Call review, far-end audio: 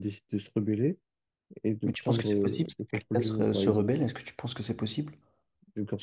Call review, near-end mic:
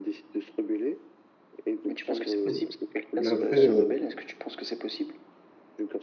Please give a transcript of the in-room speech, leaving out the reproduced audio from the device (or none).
Mhm. Mais après, euh,